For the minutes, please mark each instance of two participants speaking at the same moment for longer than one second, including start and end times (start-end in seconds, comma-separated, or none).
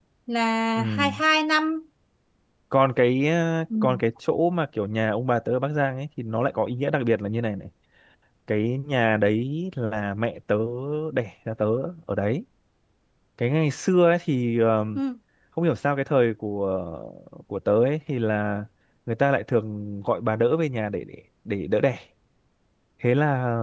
none